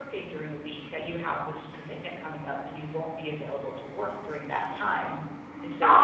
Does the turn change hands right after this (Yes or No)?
Yes